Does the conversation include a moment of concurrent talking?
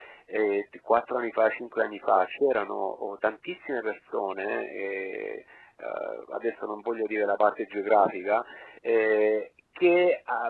No

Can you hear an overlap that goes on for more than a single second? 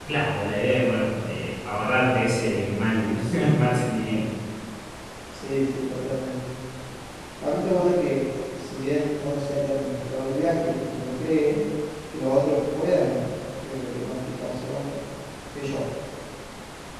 No

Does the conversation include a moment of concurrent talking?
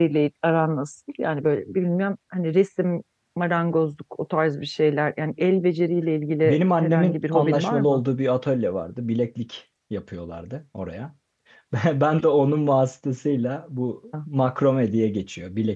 Yes, from 6.4 s

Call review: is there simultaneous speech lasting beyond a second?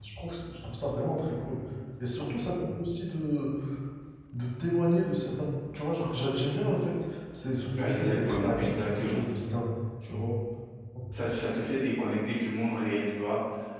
Yes, from 7.8 s

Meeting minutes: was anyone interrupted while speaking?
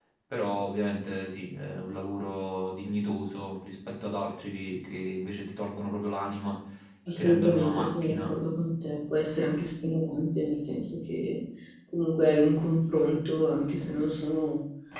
Yes, from 7.2 s

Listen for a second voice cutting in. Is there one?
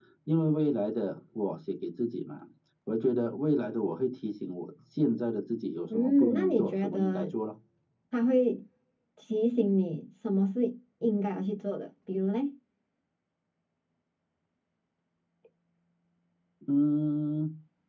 Yes, from 5.9 s

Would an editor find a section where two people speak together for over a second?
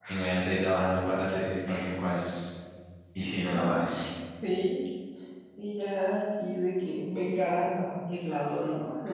No

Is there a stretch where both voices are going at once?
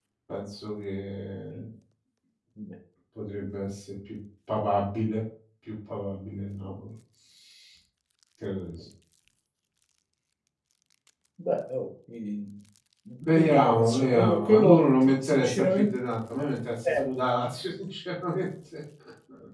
Yes, from 13.3 s

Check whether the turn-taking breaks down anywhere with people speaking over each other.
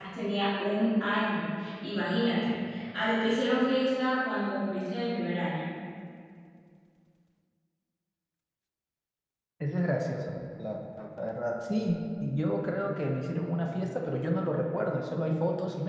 No

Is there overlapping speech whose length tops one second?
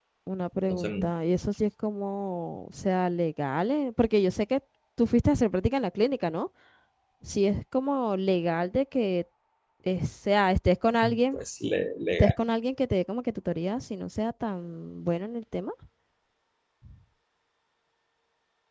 No

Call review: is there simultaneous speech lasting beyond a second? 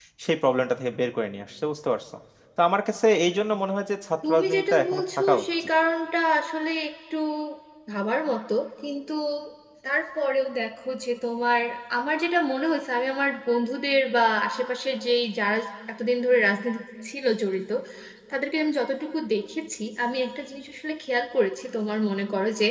Yes, from 4.2 s

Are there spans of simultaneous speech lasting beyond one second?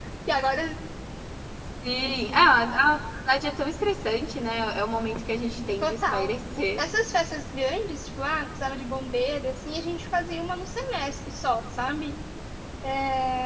No

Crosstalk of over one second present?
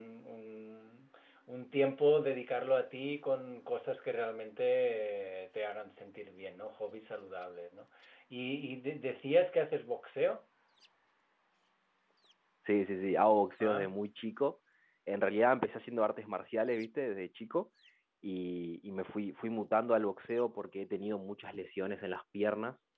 No

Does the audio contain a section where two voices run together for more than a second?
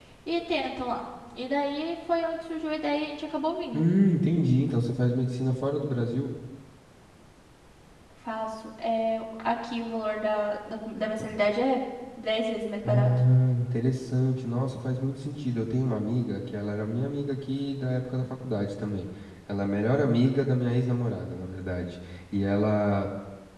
No

